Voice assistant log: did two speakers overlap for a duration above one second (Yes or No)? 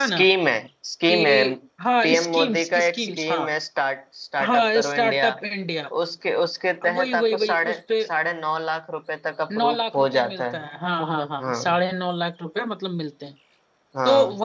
Yes